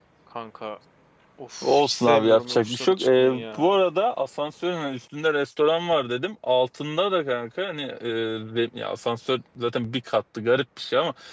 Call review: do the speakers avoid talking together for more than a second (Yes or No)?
No